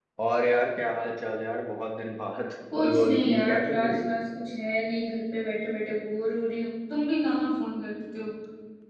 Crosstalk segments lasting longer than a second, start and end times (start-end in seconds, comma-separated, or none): 2.8-4.0